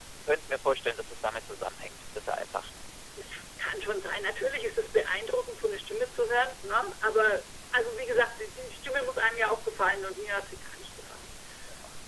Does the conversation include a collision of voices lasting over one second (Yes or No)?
No